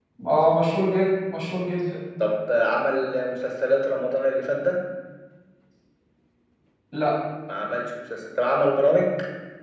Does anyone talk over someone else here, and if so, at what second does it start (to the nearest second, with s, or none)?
none